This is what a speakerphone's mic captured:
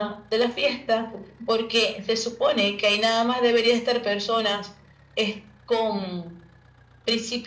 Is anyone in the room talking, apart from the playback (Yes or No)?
No